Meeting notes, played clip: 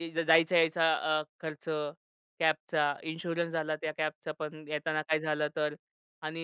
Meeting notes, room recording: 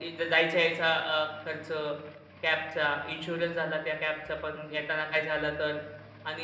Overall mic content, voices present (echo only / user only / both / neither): echo only